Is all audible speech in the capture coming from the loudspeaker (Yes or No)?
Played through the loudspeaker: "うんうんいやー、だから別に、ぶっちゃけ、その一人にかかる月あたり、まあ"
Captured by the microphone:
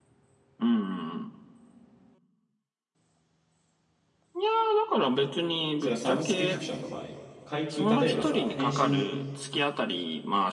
No